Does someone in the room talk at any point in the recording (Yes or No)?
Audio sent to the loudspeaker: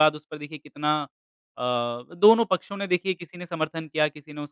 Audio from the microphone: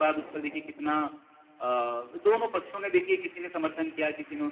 No